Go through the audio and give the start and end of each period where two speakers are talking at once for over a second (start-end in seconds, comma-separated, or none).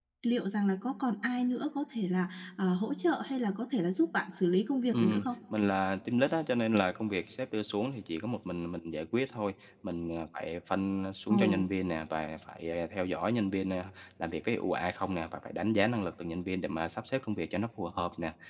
none